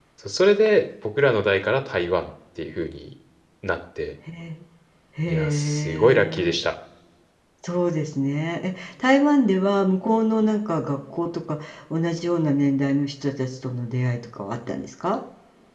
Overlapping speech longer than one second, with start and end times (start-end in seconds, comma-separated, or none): 5.3-6.6